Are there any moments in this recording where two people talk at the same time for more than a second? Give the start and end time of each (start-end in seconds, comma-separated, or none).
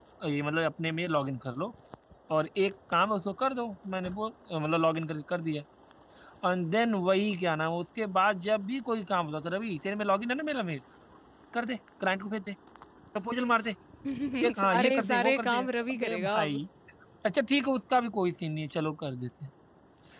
14.6-16.6